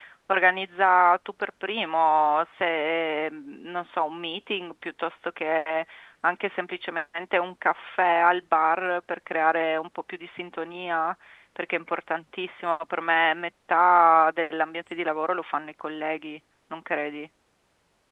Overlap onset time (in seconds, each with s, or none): none